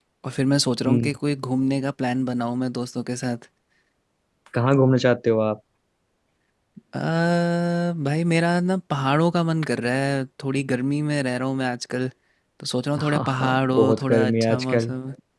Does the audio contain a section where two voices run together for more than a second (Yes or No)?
Yes